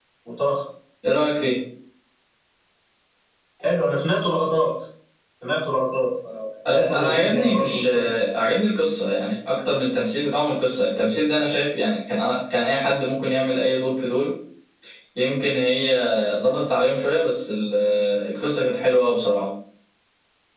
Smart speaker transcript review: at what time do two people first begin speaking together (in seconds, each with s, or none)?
6.7 s